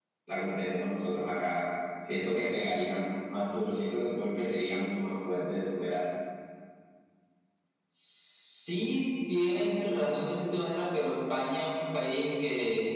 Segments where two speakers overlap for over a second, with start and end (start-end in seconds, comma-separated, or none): none